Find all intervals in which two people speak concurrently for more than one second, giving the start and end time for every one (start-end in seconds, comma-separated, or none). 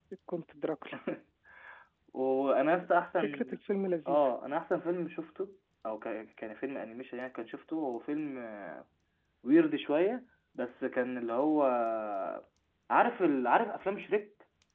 none